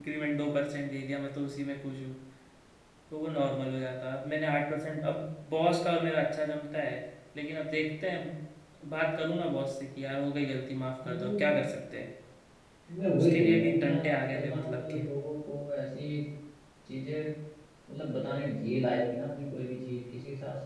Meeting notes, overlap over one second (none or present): present